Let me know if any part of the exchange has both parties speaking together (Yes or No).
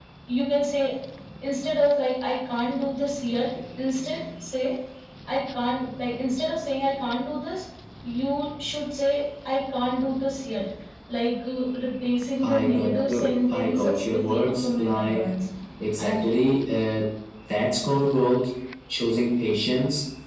Yes